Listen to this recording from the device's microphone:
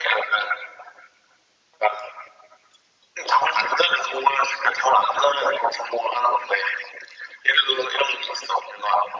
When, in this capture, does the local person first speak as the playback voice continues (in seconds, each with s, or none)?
none